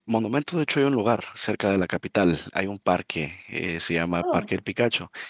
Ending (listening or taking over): listening